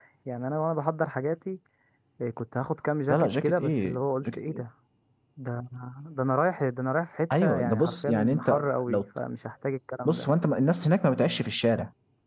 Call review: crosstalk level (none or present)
present